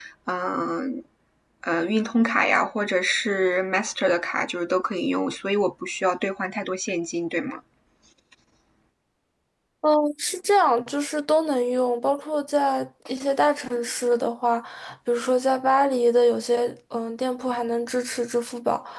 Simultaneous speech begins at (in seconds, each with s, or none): none